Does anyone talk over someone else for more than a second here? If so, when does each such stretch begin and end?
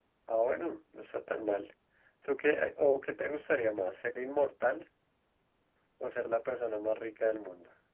none

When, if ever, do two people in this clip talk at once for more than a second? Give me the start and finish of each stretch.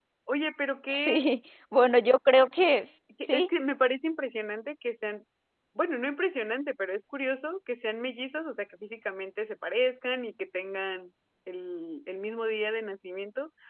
none

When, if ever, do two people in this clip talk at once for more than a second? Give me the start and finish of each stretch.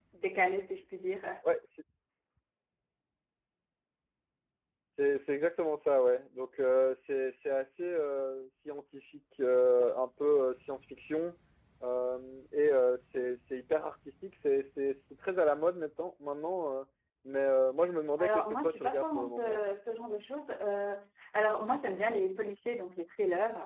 18.2-19.6

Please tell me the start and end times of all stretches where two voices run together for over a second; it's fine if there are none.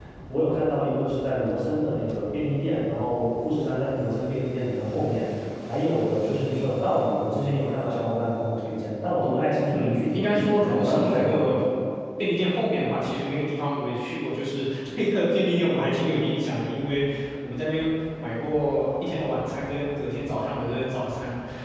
9.7-11.6

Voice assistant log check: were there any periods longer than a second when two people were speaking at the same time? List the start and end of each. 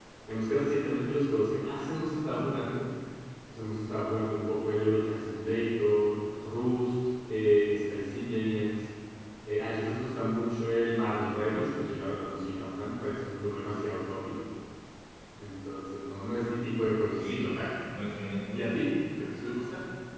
none

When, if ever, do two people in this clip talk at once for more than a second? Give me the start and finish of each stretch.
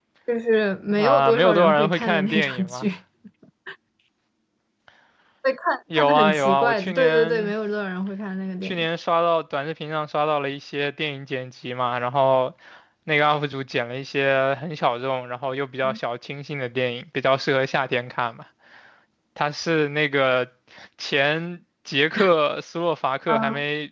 1.0-2.9, 6.0-7.5

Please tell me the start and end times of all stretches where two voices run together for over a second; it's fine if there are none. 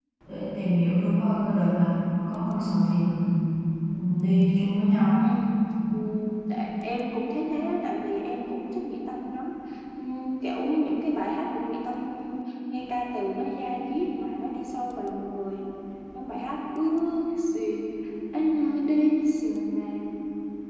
none

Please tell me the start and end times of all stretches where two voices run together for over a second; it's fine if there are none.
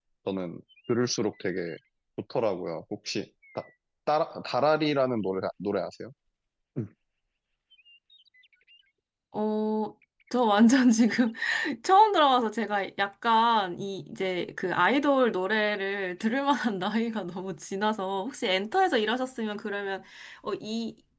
none

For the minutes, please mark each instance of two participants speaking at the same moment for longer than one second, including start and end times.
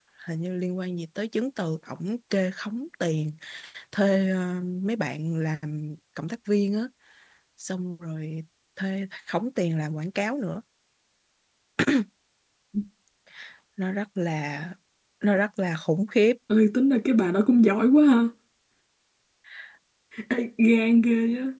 none

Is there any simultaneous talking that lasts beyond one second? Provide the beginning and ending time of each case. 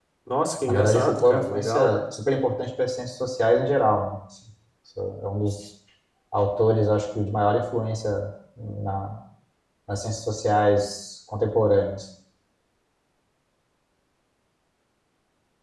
0.7-1.9

